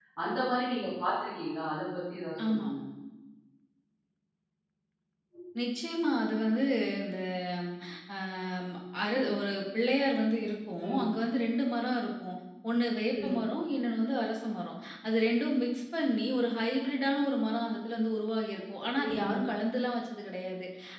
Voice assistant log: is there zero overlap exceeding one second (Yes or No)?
Yes